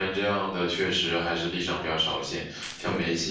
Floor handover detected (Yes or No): No